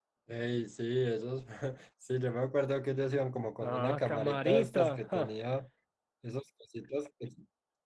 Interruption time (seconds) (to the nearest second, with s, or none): 4 s